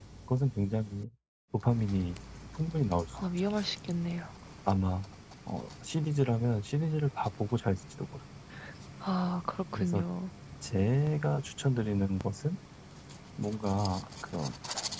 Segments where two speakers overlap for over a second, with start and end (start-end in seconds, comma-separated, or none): none